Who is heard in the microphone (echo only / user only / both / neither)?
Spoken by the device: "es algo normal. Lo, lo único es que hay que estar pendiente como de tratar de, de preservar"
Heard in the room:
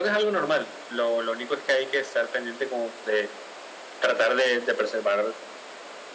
echo only